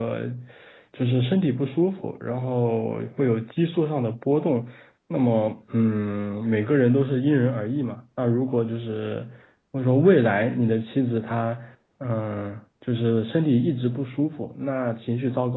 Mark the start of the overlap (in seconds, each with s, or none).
none